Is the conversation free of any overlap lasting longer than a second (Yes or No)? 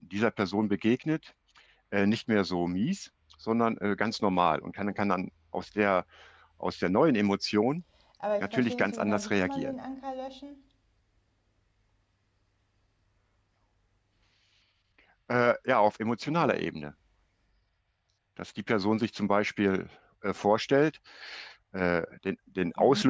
No